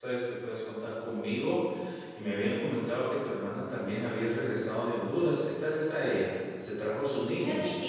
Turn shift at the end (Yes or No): Yes